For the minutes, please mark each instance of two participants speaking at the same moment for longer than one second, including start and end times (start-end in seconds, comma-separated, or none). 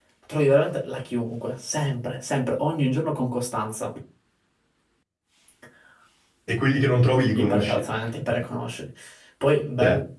none